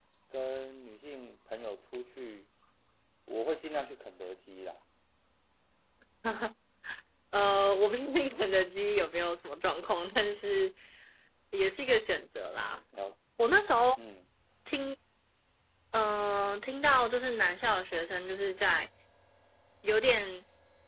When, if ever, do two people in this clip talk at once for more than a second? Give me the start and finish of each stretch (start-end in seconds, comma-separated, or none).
none